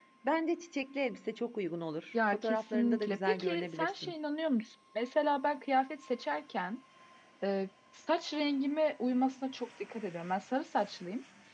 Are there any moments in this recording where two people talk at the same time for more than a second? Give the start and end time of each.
2.3-4.1

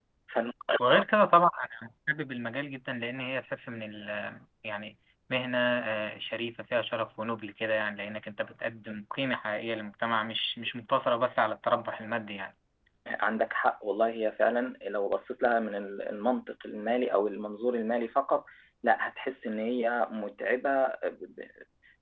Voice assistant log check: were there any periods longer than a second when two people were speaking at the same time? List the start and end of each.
none

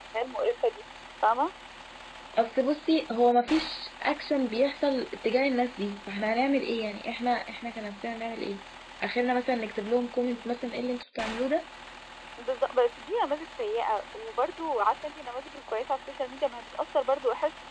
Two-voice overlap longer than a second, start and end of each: none

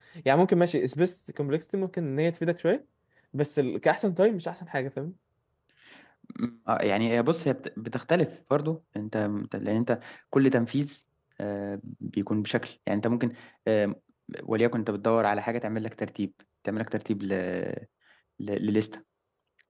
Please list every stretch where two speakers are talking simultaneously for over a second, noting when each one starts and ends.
none

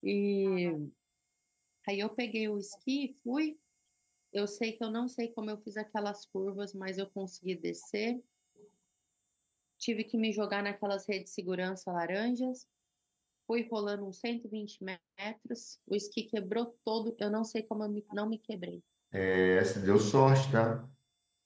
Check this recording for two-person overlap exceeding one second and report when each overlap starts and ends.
none

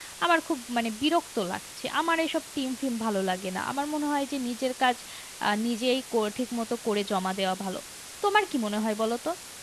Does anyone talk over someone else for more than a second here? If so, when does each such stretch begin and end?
none

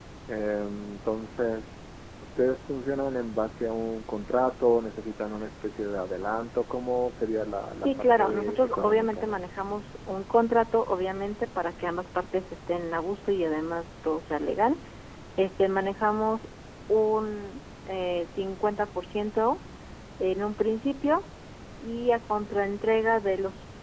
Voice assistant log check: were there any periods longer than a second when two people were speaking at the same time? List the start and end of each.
7.8-9.4

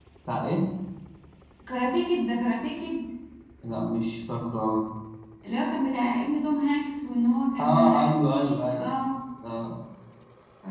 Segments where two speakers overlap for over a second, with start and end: 7.6-8.9

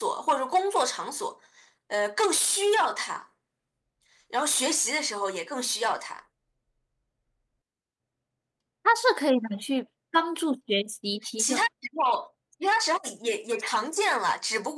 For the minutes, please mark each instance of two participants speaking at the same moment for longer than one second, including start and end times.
none

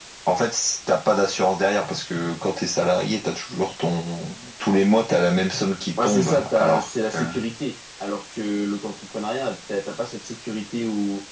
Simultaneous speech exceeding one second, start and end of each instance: 6.0-7.3

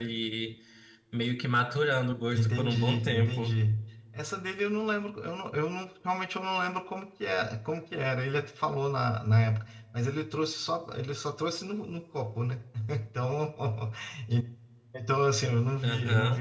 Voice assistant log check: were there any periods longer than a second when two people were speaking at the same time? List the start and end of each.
2.3-3.5

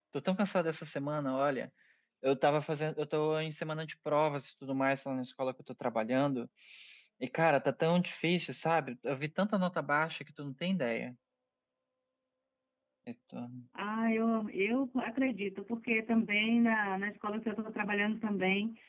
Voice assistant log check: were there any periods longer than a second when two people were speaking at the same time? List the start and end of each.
none

